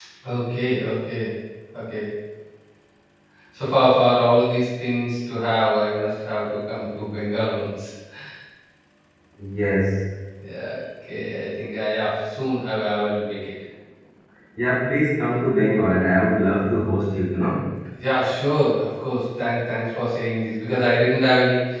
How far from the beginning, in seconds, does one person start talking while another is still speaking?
none

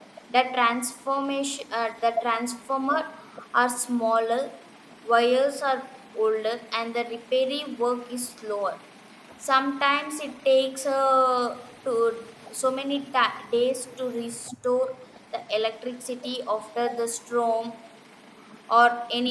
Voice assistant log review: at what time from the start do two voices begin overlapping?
none

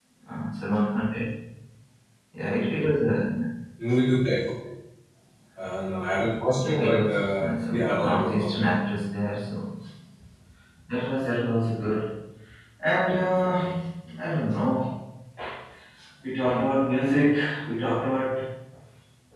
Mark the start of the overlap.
6.5 s

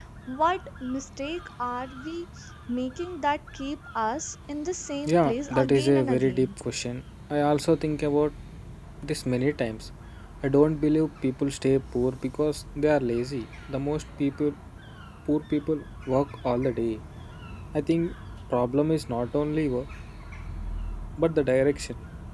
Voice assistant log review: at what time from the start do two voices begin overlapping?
5.1 s

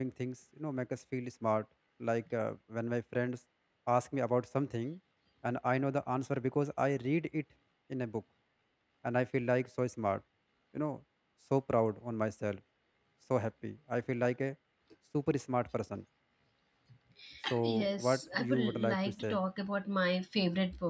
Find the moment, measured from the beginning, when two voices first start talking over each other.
17.6 s

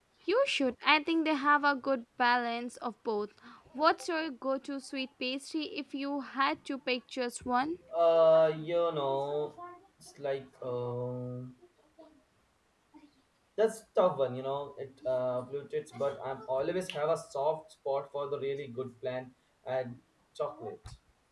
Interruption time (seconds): none

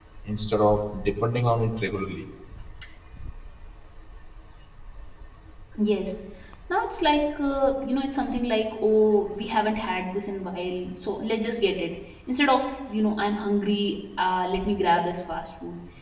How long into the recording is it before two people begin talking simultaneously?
none

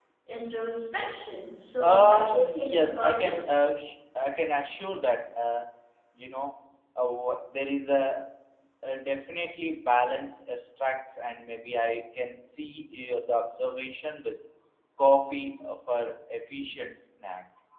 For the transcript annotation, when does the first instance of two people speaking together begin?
1.8 s

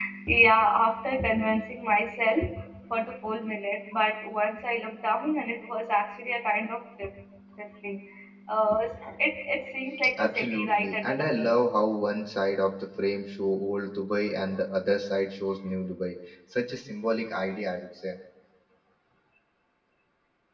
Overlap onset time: 10.2 s

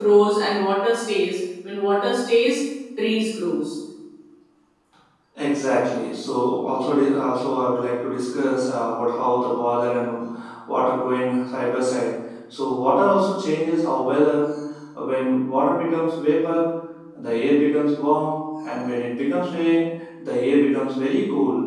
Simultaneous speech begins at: none

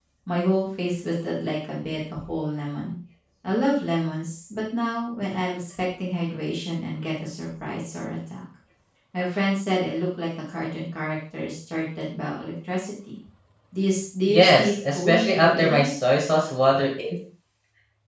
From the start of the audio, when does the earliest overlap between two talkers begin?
14.3 s

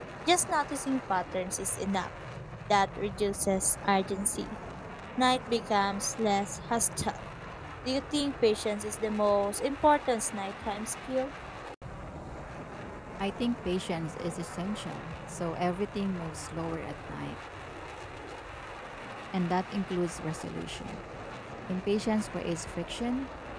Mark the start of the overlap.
none

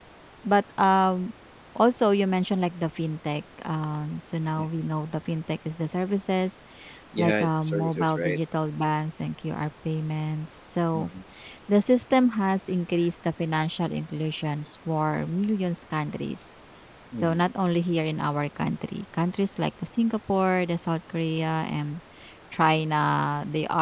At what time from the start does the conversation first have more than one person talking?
7.2 s

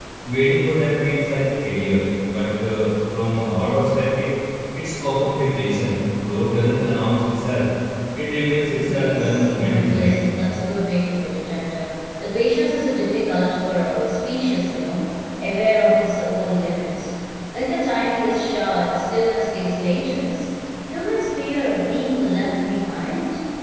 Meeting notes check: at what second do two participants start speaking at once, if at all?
8.8 s

